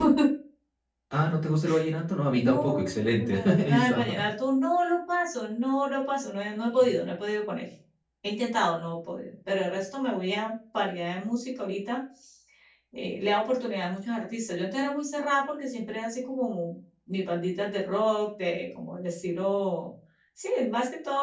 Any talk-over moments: Yes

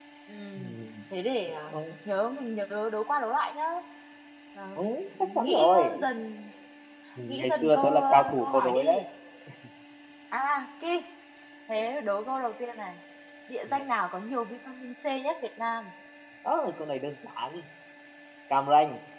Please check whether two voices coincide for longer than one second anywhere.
Yes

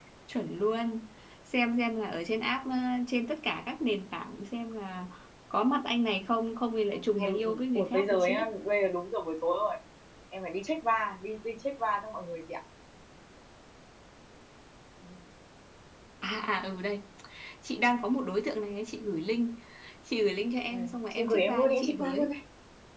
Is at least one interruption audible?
Yes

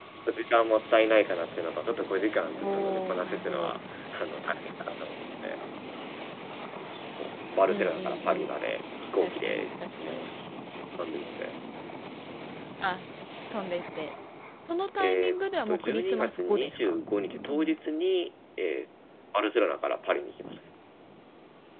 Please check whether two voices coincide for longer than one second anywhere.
Yes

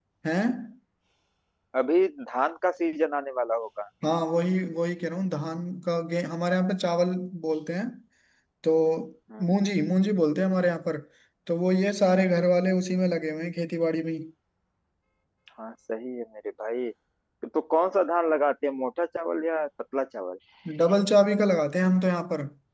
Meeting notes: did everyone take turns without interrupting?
Yes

